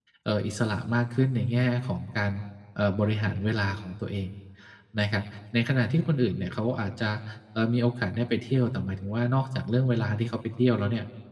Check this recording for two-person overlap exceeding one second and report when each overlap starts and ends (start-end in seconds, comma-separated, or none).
none